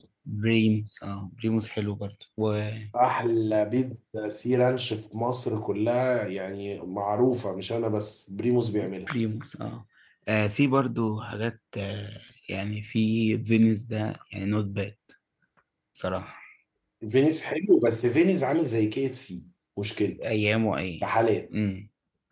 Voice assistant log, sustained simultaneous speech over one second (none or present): none